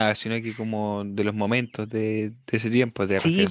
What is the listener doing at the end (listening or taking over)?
taking over